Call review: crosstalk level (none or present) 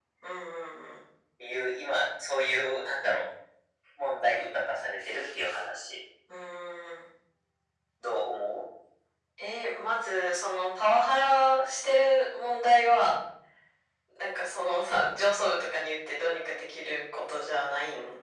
none